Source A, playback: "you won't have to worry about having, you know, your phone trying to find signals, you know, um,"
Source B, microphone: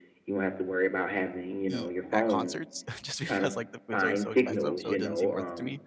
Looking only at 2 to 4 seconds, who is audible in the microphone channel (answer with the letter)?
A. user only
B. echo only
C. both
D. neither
C